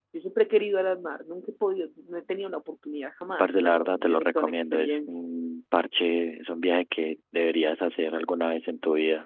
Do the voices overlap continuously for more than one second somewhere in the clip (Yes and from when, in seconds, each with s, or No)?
Yes, from 3.4 s